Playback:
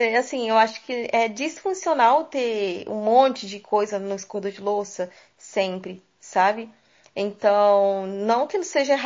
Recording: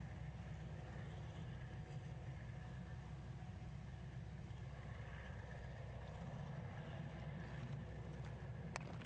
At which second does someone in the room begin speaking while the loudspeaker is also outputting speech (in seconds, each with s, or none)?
none